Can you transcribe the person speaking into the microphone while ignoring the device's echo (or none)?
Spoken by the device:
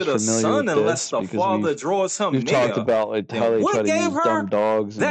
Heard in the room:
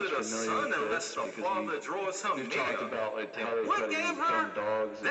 none